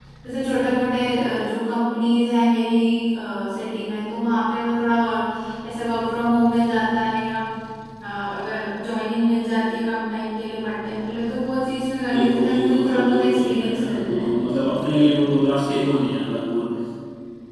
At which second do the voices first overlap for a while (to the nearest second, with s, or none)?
12 s